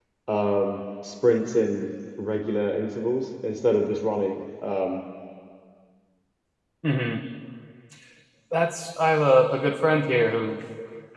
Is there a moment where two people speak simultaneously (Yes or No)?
No